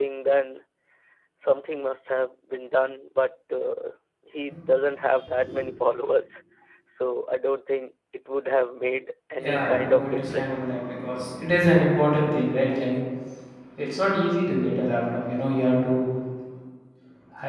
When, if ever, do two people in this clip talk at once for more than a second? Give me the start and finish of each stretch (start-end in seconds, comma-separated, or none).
9.4-10.7